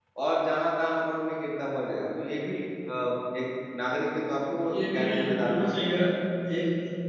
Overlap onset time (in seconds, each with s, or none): 4.3 s